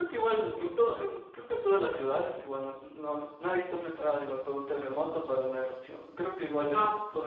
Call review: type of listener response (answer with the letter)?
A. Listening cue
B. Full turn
A